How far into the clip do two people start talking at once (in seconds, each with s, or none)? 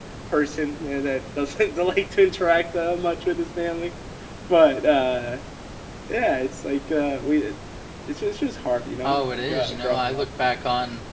9.0 s